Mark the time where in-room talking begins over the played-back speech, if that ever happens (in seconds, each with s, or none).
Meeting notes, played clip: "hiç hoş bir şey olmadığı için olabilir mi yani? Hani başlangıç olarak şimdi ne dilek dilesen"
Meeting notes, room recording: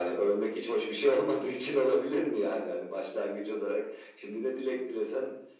none